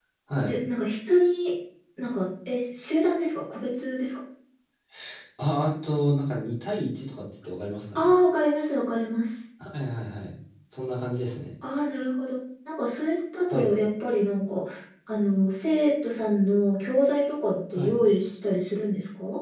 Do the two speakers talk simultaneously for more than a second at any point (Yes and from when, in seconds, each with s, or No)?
No